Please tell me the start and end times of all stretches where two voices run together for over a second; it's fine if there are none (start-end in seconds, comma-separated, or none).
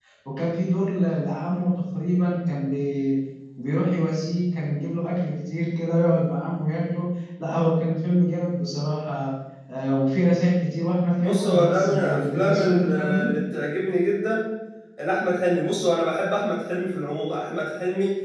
11.2-13.3